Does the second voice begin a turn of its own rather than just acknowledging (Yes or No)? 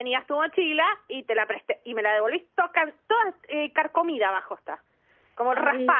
Yes